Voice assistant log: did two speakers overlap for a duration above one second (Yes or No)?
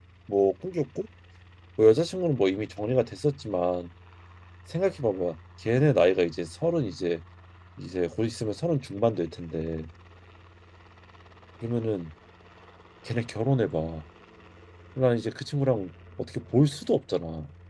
No